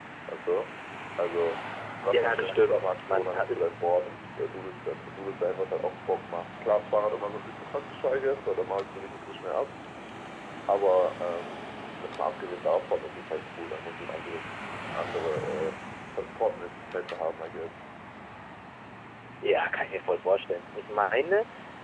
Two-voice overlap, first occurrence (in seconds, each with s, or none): 2.1 s